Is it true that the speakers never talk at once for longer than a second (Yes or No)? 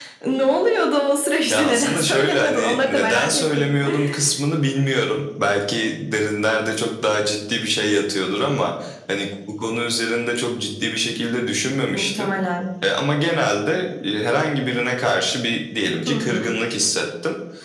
No